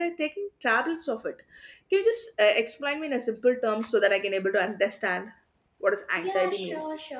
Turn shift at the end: Yes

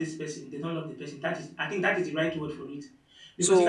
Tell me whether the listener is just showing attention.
No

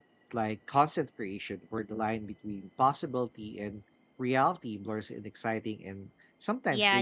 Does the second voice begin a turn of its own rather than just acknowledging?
Yes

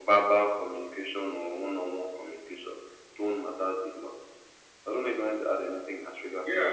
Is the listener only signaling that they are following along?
No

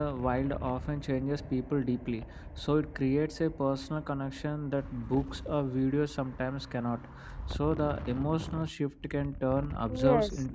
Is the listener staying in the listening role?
No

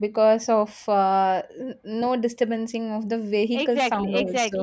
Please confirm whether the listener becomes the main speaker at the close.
Yes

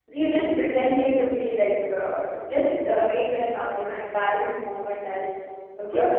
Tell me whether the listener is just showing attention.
No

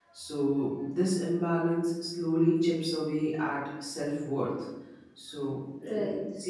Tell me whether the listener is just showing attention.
Yes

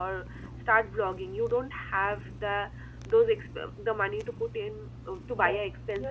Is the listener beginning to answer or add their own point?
Yes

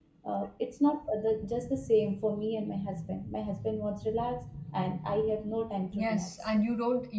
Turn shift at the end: Yes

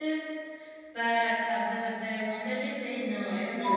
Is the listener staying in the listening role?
No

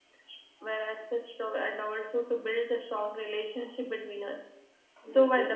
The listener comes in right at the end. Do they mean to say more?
No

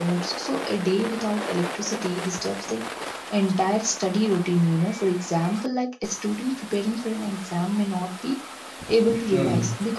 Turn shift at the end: No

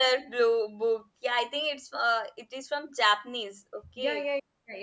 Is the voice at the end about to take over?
Yes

